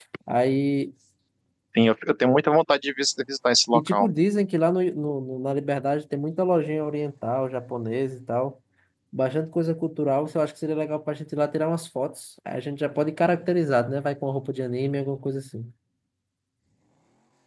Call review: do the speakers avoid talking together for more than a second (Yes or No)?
Yes